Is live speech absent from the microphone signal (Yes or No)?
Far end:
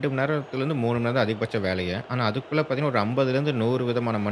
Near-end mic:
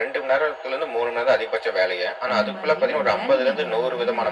No